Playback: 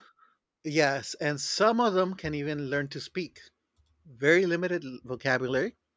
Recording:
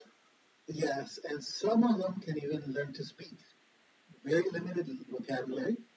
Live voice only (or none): none